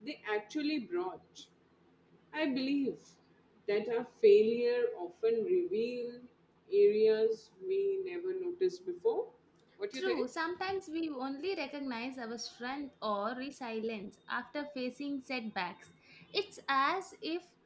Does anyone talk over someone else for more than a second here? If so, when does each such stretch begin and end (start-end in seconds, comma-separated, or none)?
none